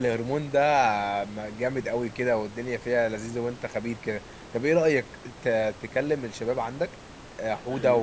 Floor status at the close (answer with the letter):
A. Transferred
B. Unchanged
B